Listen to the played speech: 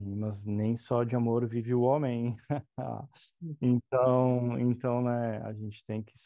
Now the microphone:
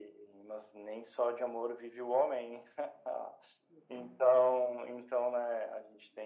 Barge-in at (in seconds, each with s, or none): none